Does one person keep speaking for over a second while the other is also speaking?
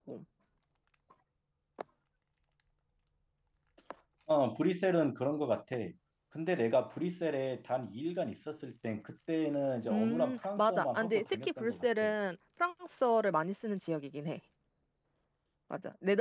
Yes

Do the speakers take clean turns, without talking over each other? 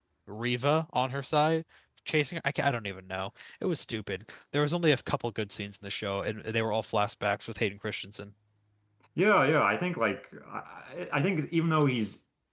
Yes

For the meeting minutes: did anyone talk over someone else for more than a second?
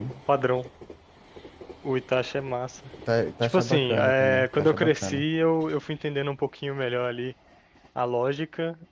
Yes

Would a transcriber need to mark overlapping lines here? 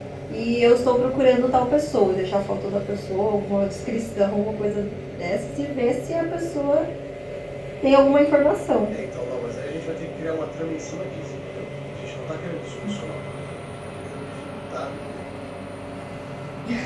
No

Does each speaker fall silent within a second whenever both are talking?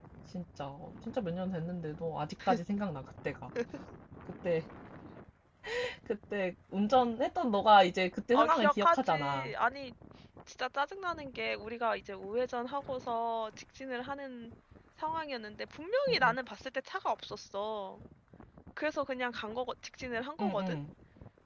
No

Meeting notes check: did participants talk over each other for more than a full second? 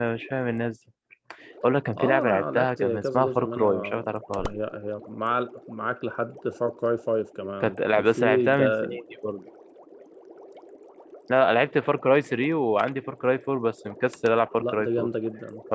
Yes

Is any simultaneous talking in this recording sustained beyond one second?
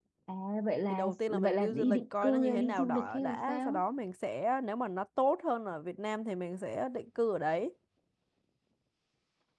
Yes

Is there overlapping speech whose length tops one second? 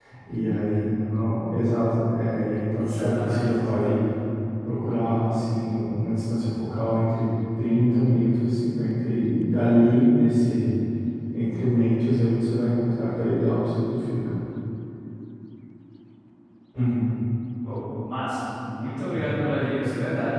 Yes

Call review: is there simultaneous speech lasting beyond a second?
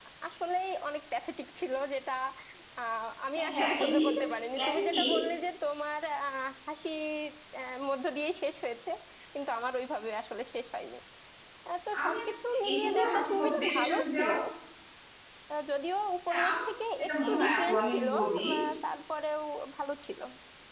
Yes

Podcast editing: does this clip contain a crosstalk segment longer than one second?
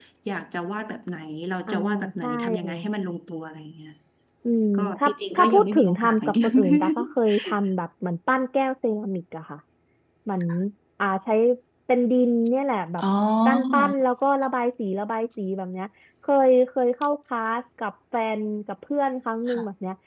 Yes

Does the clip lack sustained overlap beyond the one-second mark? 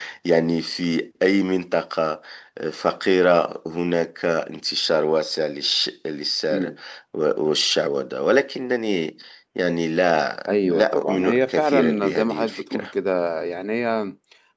No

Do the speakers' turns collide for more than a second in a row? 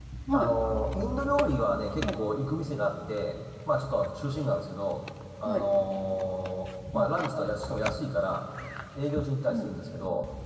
No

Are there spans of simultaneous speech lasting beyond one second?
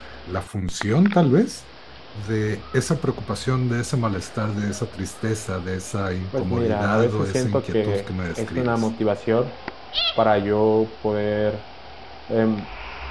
Yes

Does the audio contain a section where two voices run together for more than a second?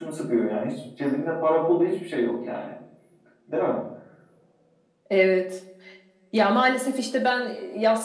No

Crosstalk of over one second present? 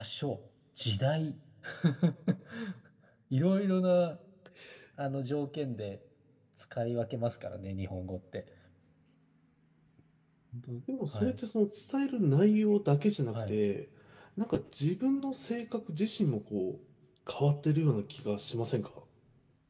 No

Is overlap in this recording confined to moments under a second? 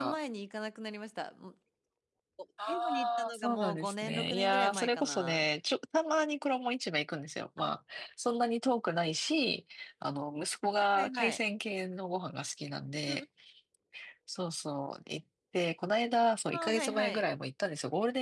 No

